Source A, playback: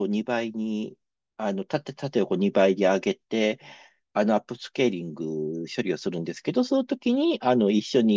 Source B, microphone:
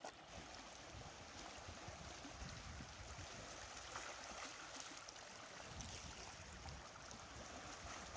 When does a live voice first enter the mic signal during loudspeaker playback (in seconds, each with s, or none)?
none